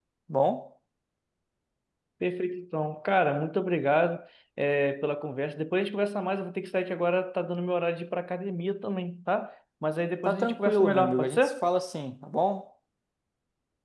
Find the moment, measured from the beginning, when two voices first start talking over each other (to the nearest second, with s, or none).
10 s